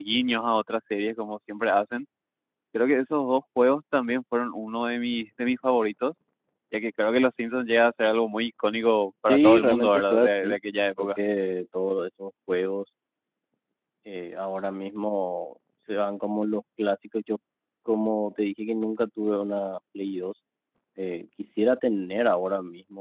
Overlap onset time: 9.3 s

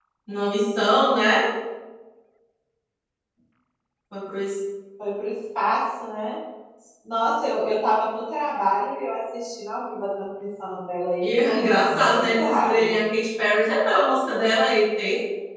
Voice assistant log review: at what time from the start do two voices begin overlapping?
11.2 s

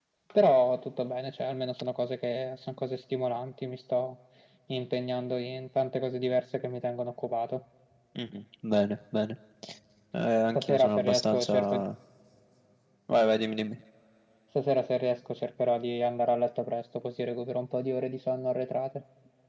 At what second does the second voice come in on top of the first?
10.5 s

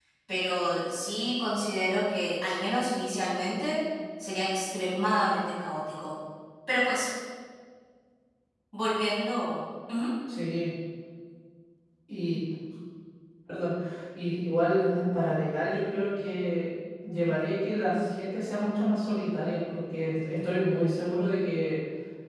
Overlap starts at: none

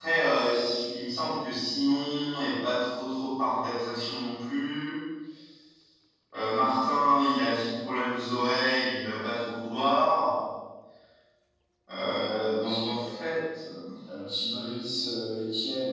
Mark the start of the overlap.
12.0 s

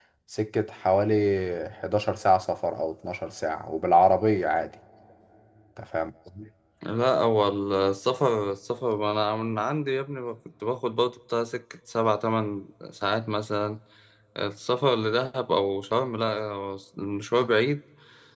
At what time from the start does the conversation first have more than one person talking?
none

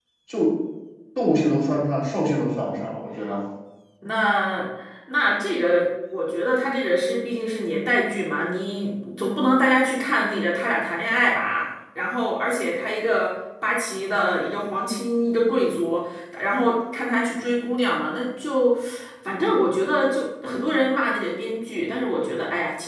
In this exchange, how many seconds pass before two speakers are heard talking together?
none

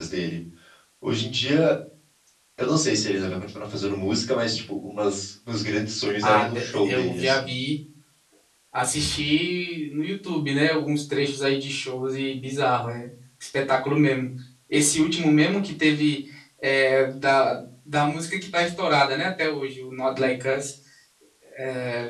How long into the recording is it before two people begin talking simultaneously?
6.2 s

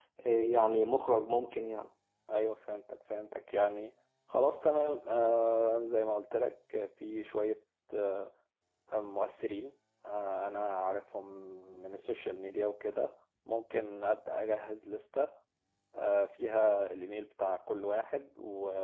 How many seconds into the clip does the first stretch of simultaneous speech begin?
none

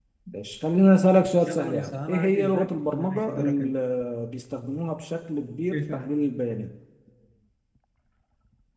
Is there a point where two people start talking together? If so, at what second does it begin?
1.4 s

